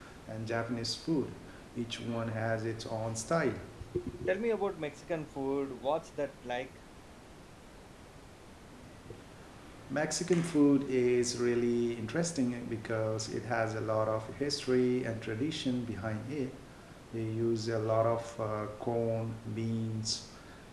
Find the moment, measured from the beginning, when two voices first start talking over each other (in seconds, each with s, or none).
none